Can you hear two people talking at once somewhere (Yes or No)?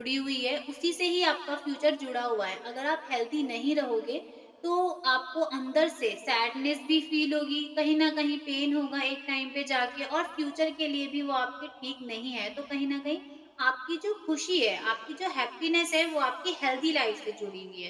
No